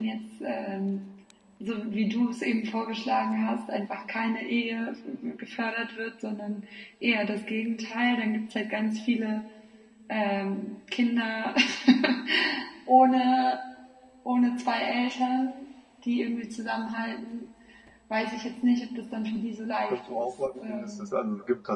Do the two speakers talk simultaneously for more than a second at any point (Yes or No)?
Yes